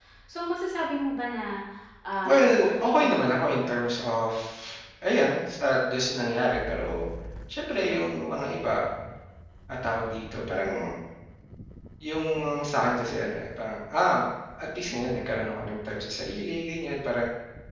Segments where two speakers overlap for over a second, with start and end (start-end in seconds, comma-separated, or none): 2.2-3.7